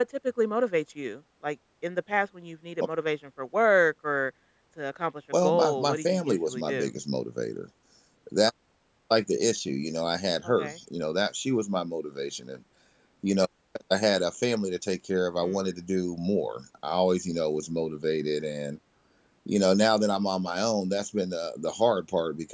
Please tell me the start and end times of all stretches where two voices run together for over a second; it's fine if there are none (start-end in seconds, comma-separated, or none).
5.4-6.9